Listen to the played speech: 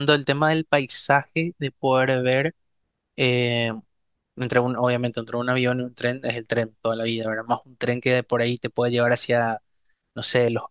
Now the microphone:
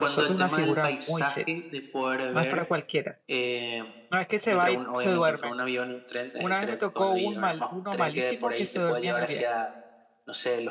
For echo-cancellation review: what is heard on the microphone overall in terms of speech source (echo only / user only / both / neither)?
both